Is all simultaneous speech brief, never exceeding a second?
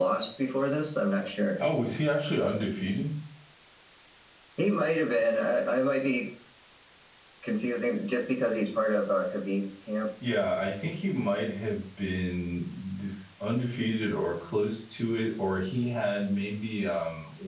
Yes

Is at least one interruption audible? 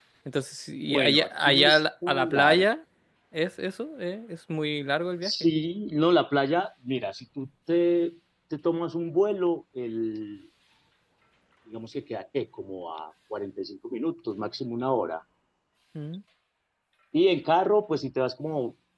Yes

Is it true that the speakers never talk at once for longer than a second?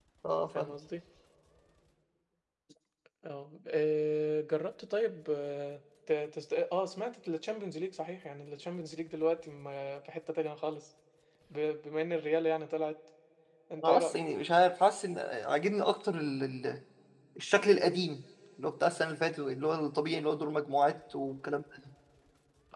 Yes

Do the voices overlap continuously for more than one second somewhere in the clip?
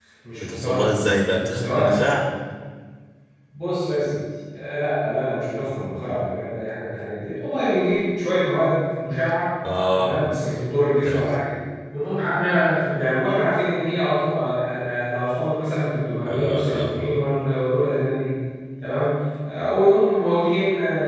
Yes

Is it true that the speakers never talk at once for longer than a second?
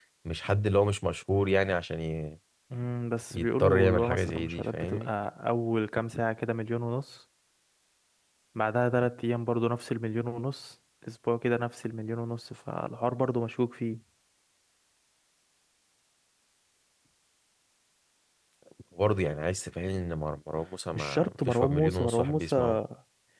No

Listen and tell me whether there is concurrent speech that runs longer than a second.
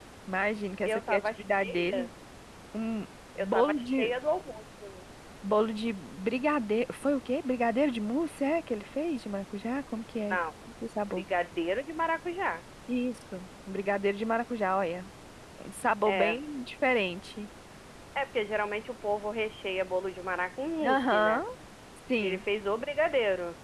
Yes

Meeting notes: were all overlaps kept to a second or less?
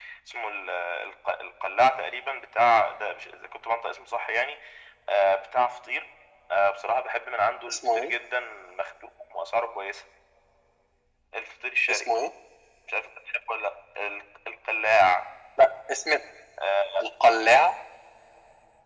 Yes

